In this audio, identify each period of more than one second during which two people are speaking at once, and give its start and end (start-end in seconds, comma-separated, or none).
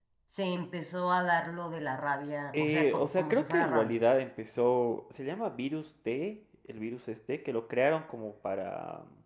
2.5-4.0